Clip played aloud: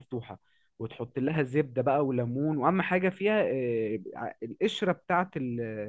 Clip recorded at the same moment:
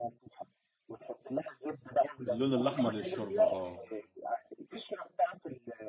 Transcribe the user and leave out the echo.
اللون الأحمر للشوربة آه

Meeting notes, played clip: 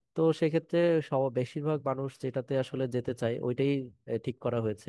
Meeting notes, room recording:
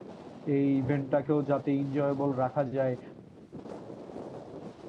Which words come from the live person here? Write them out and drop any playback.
এই ইভেন্টটাকেও যাতে এনজয়েবল রাখা যায়

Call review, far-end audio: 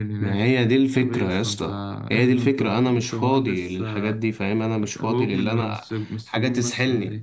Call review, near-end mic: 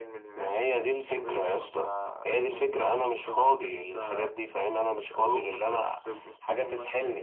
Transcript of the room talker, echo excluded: none

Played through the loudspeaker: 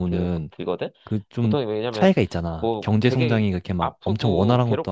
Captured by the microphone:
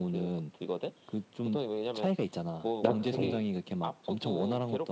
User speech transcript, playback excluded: 나 음,

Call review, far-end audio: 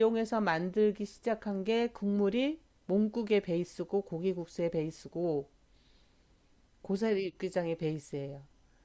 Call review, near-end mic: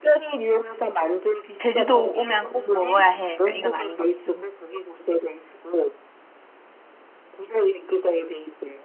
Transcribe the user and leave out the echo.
제주도 오면 꼭 먹어야 해. 약간 이건 아닌 것 같긴 해요.

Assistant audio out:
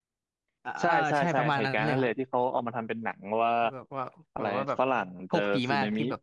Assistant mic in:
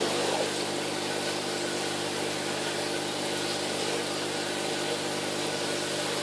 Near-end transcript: none

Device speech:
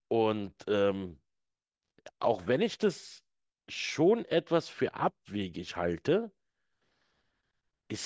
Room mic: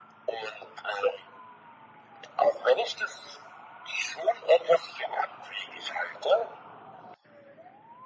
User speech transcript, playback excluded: none

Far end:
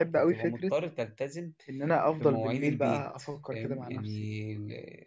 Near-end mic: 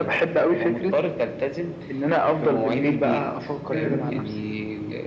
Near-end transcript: مم.

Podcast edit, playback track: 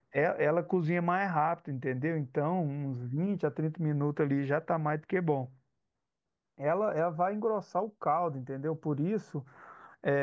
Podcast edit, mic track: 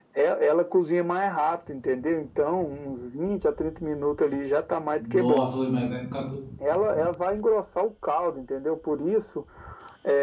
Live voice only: Nossa, ui, mas vai ficar, go-

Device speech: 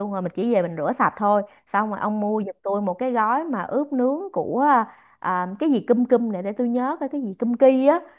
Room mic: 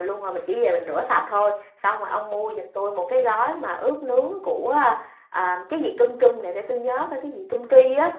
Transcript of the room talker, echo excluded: none

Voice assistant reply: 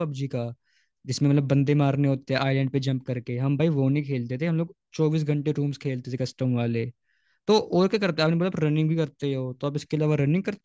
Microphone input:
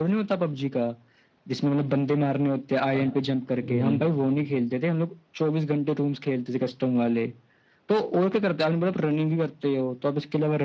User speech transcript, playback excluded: अच्छा, हम्म,

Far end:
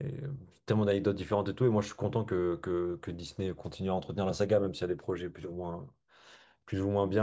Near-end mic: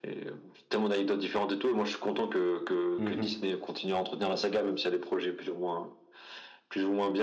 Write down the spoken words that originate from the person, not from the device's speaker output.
Mhm.

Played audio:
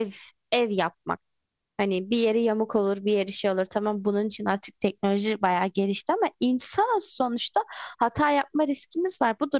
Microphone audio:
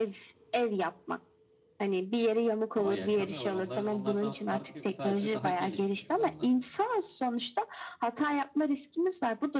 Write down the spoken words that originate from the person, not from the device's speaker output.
Ama yaşamıyorlar. Onların onlardan farkı yok. Sadece daha gelişmiş olanları.

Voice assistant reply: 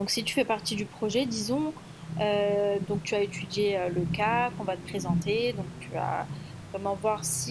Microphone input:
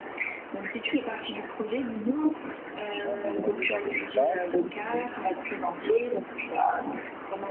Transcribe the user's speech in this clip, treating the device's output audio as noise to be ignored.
Ils ont des loyers dans tous les cas.

